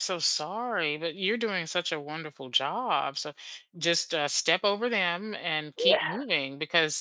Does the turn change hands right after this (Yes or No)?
No